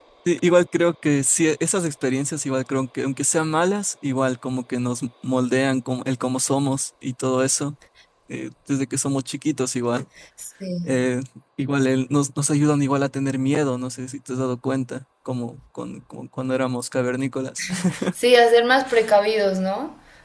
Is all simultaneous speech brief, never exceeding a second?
Yes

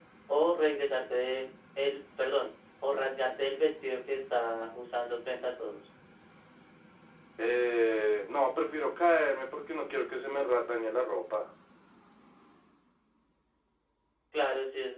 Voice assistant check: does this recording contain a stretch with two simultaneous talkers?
No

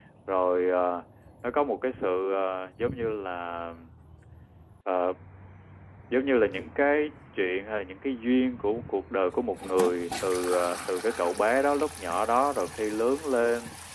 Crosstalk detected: No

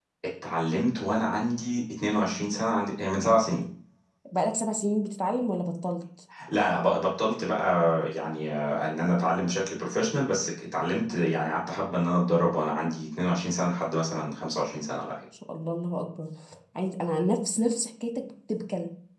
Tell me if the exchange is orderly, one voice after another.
Yes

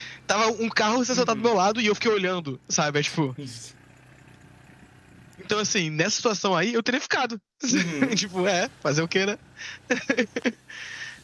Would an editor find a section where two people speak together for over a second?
No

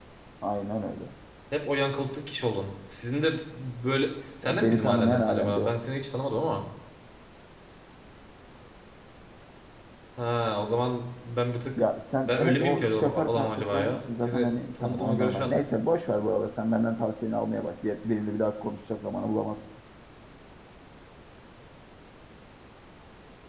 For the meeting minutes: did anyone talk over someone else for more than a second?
Yes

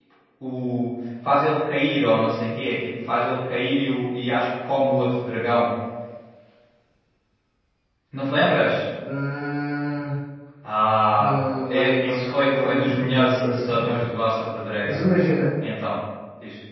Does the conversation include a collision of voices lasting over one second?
Yes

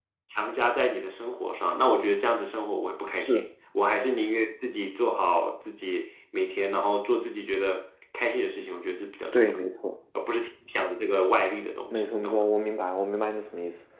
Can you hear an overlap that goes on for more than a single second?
No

